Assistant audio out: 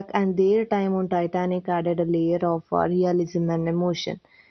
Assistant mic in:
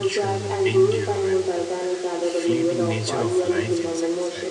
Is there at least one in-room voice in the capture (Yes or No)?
Yes